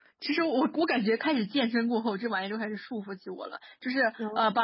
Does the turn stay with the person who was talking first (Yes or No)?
Yes